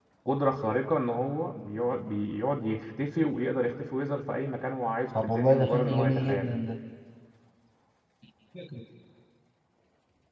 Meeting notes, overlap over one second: present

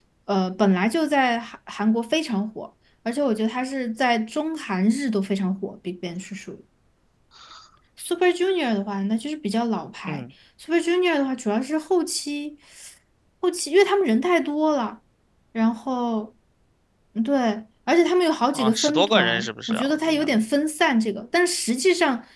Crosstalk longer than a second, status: present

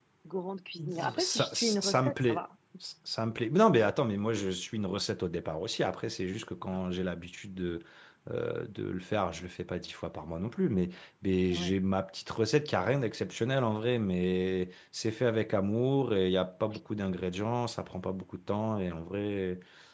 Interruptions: present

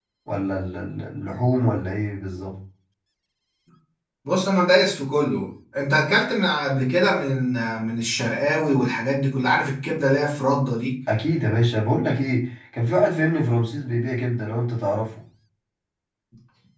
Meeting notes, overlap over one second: none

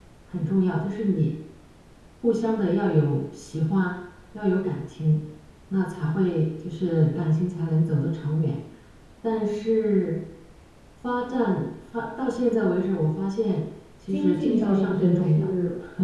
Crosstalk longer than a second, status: present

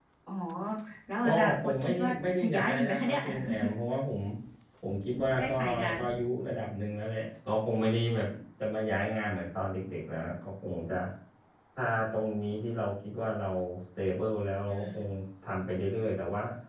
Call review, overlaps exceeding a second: present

